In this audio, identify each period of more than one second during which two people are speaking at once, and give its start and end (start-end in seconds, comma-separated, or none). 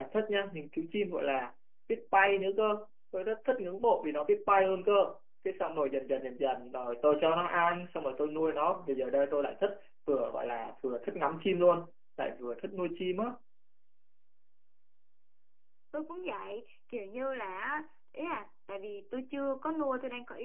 none